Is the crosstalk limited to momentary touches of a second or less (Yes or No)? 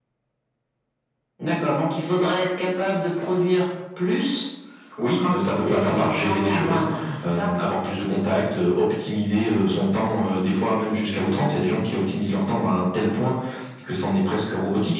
No